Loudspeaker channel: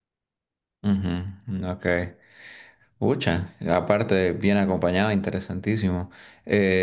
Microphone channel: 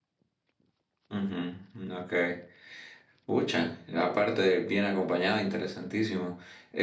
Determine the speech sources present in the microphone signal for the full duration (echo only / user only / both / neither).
echo only